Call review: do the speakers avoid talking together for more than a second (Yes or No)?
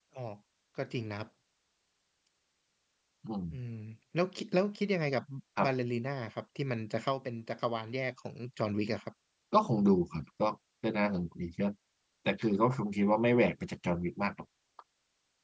Yes